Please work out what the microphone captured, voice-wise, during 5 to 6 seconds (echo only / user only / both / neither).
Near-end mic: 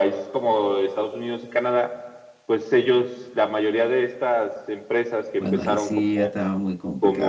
both